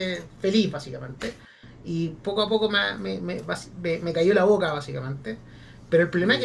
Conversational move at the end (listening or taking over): listening